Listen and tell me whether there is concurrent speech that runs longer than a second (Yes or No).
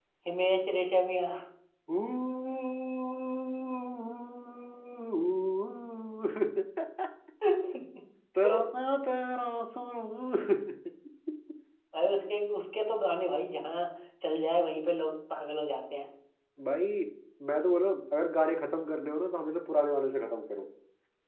No